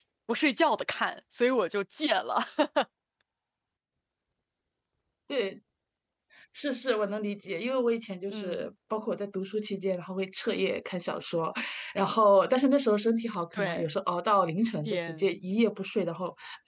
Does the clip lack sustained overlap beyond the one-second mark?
Yes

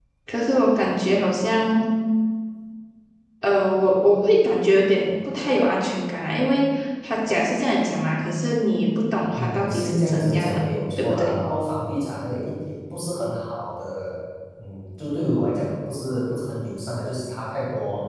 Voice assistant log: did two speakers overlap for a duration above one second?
Yes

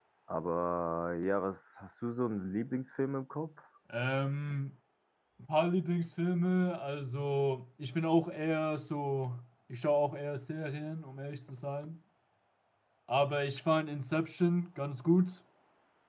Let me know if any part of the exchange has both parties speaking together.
No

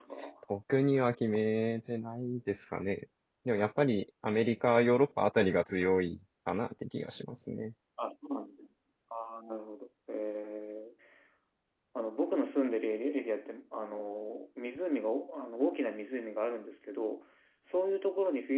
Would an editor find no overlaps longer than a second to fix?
Yes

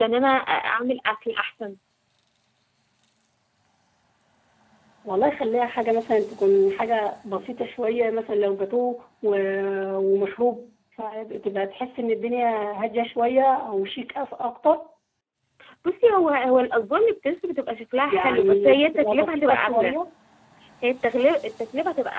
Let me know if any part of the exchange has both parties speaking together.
Yes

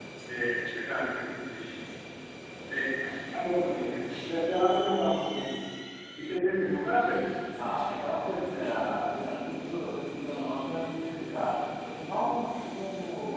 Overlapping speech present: No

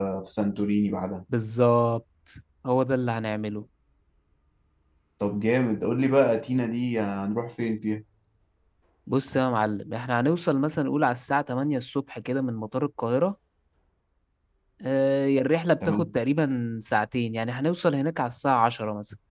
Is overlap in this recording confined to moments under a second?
Yes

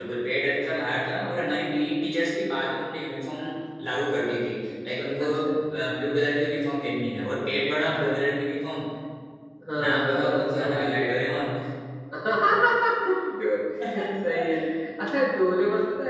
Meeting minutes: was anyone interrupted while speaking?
Yes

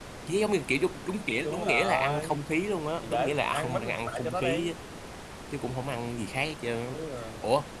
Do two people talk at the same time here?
Yes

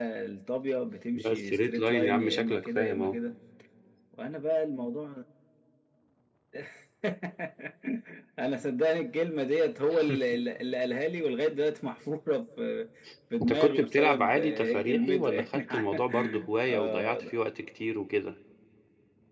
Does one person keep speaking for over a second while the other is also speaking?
Yes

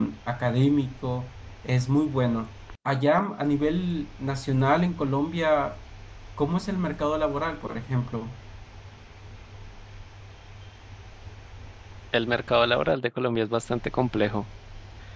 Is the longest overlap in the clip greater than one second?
No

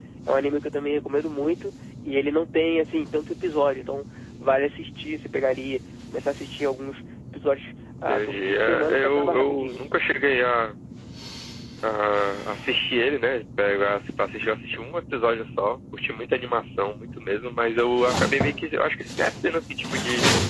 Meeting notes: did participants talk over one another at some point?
Yes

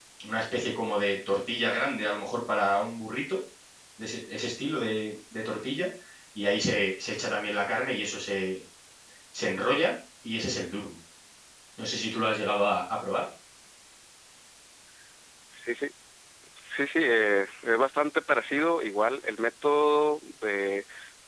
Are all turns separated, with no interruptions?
Yes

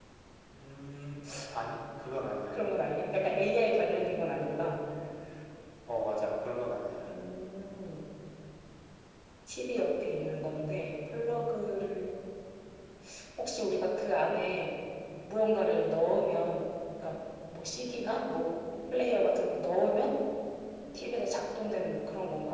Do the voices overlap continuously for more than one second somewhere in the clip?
No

